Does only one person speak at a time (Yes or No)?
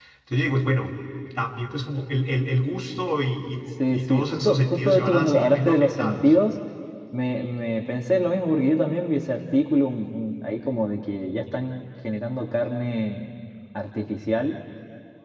No